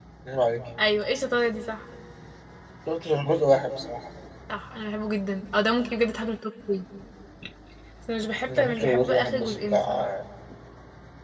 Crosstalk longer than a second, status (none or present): present